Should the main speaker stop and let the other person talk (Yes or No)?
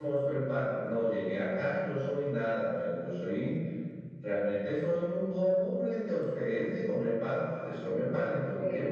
Yes